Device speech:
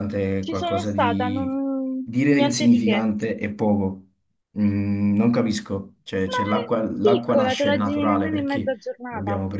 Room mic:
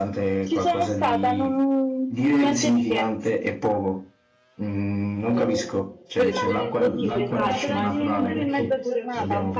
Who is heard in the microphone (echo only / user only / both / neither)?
both